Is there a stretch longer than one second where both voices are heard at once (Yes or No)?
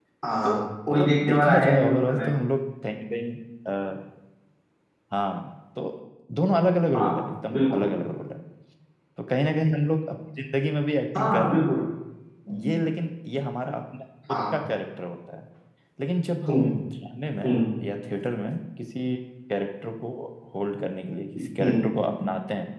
Yes